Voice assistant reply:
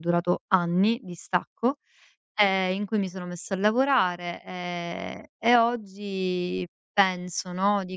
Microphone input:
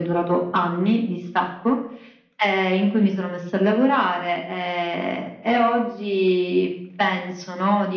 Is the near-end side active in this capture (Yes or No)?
No